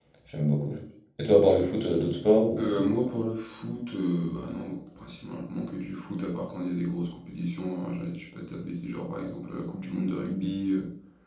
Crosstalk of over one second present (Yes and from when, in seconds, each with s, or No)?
No